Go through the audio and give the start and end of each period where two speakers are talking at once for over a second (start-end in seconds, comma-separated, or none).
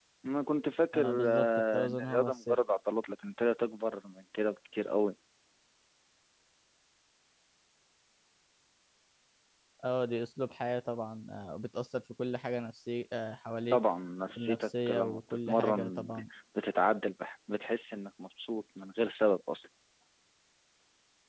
0.9-2.6, 14.4-16.1